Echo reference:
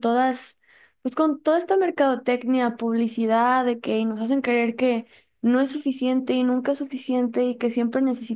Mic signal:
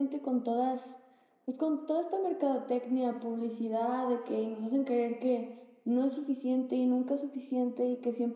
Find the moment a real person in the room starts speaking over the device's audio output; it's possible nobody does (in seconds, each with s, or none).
none